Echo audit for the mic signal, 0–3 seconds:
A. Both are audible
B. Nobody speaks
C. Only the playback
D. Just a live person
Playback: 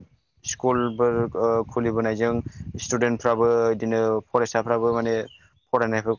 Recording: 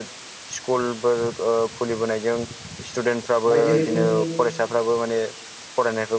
C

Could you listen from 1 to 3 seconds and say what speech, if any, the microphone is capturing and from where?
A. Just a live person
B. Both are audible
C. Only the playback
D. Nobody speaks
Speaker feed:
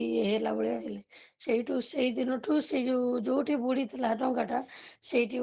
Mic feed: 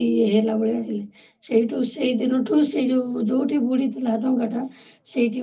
C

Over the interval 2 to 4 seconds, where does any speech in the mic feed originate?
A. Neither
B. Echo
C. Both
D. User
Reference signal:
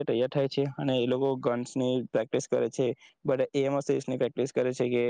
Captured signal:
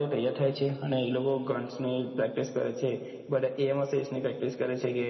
B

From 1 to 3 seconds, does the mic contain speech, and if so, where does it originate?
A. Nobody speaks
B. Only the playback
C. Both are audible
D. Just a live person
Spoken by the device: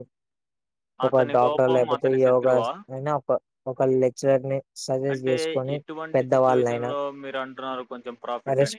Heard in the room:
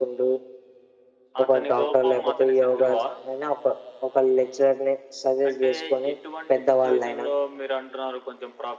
B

